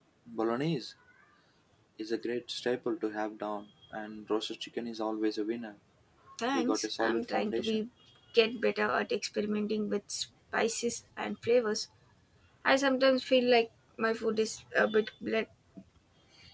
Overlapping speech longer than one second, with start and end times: 6.5-7.8

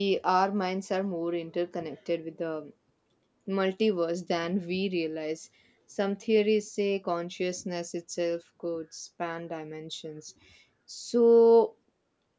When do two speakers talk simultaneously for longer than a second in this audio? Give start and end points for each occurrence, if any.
none

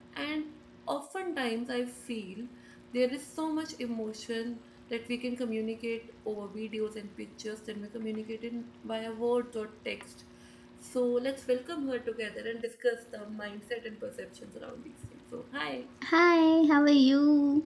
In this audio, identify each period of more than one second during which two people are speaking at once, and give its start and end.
none

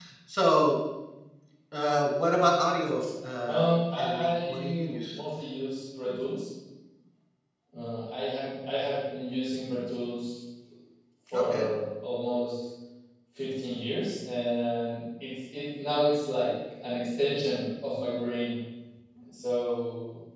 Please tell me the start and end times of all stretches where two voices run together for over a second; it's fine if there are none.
3.4-5.2

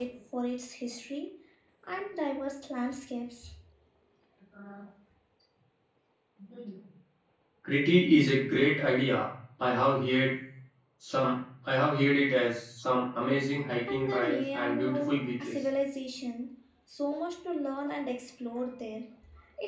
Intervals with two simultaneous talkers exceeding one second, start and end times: 13.9-15.6

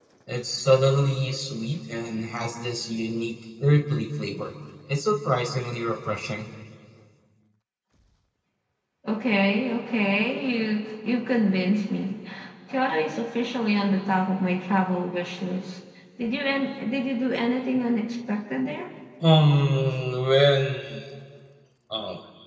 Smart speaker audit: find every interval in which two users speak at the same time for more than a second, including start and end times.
none

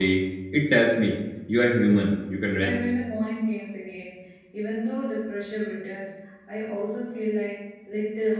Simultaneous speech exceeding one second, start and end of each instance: none

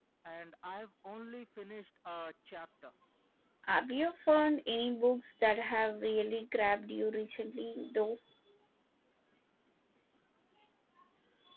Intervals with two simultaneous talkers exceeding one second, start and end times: none

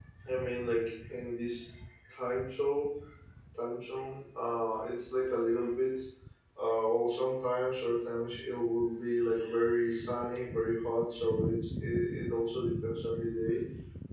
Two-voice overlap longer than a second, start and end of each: none

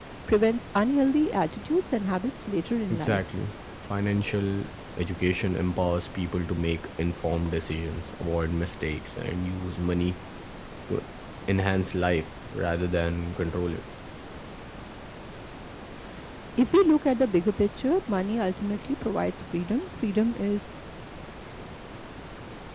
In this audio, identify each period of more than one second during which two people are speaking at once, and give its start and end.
none

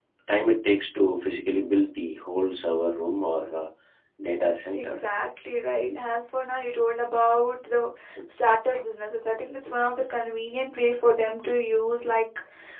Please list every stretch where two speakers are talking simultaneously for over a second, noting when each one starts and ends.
none

